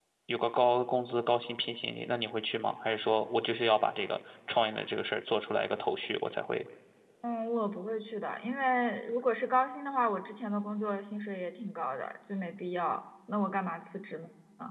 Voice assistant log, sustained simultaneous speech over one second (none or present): none